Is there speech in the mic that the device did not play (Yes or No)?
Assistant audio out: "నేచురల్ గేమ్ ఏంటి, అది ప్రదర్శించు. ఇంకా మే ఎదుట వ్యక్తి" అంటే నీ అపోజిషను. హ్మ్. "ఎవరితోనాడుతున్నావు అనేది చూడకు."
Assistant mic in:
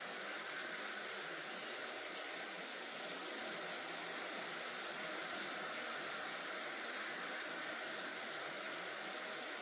No